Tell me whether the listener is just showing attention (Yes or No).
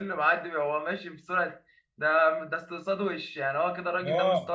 No